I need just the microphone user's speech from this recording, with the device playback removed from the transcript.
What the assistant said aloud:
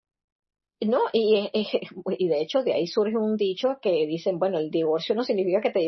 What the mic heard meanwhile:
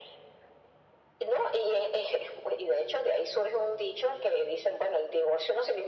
none

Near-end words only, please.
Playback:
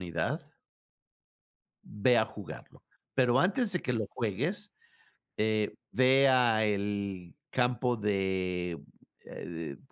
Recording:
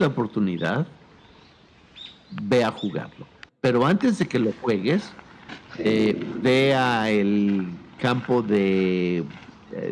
sí.

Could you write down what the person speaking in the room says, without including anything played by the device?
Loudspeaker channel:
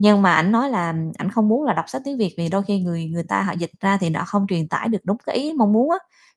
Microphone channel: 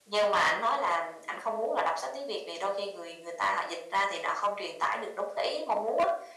none

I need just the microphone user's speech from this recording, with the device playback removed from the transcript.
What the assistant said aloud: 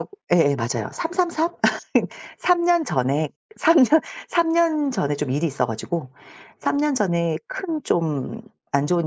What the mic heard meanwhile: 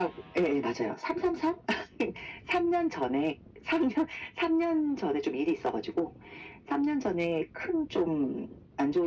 none

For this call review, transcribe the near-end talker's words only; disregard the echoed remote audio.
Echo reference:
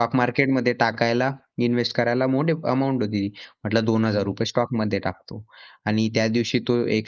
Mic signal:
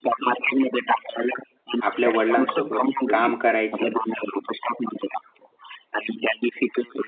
आपल्या वडिलांसोबत काम करायचं,

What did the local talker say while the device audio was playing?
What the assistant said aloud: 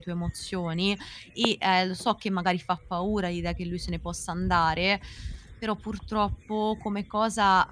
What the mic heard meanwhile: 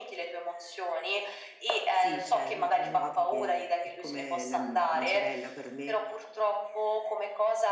Sì, c'è mia cognata che è come la mhmm, una sorella per me

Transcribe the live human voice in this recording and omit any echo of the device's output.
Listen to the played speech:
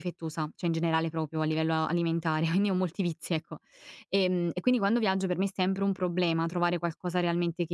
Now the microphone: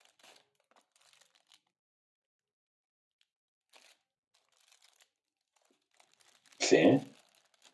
Sì?

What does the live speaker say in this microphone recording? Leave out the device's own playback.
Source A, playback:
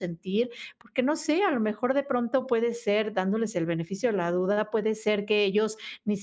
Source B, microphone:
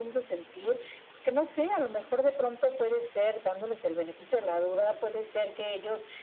none

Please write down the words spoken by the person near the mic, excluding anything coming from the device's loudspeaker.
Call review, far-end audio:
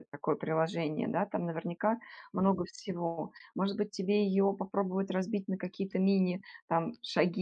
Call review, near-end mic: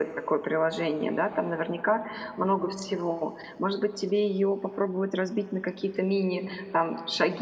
none

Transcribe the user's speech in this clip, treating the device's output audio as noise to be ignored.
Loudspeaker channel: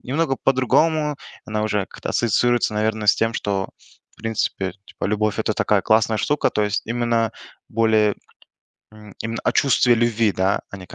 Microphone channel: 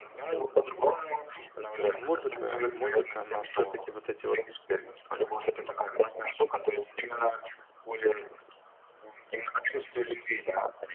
м, то музыка, музыка, но все-таки вот эти вот

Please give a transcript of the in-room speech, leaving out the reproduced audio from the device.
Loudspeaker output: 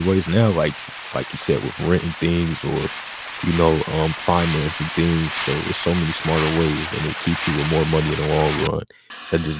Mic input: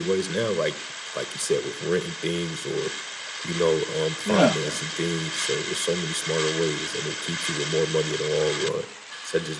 yeah.

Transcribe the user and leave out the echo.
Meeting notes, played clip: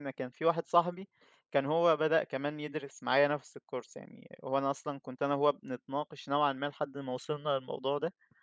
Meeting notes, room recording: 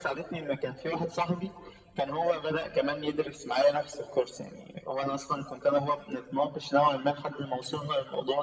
none

